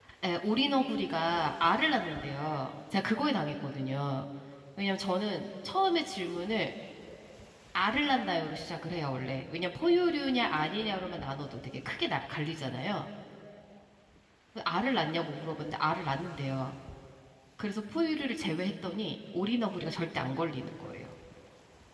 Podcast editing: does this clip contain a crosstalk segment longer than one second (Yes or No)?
No